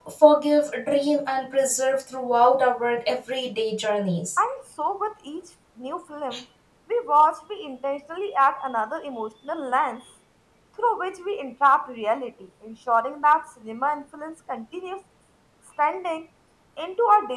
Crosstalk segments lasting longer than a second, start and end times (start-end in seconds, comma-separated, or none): none